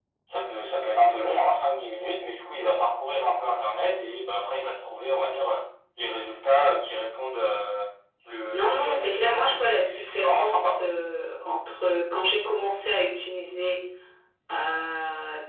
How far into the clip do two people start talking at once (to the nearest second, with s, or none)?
9 s